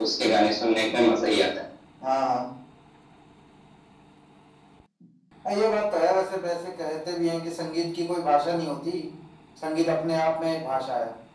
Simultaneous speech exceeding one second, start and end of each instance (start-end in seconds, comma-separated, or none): none